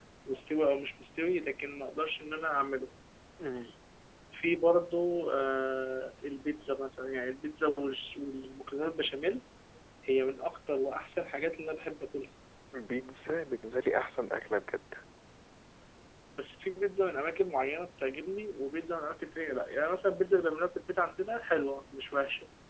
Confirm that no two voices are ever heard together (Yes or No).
Yes